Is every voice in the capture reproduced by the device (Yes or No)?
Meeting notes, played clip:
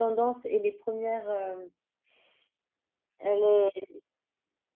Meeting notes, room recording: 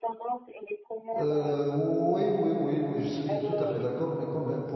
No